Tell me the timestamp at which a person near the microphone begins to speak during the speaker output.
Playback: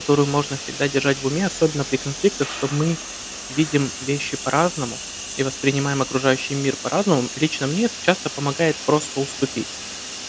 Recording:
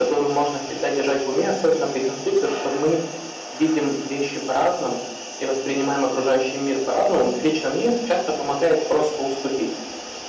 none

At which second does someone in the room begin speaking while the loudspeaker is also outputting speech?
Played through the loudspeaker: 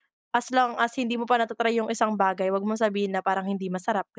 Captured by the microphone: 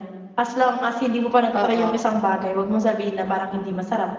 1.5 s

